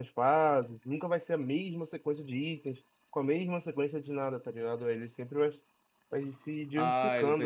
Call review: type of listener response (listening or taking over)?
taking over